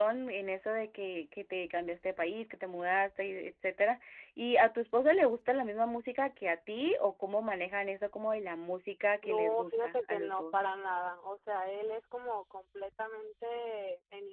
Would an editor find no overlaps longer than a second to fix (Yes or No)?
No